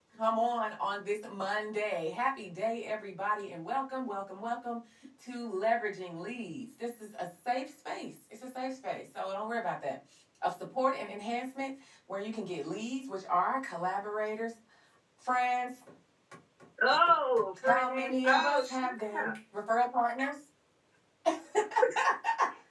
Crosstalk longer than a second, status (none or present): present